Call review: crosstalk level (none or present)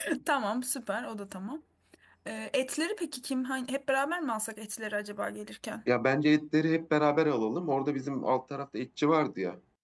none